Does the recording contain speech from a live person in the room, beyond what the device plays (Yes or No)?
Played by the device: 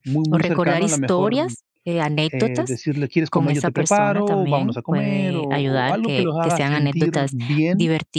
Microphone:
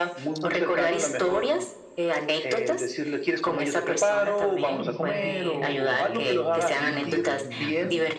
Yes